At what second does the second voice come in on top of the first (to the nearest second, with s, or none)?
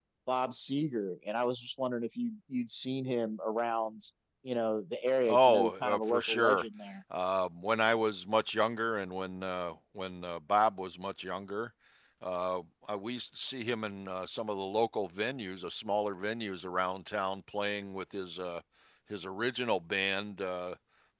5 s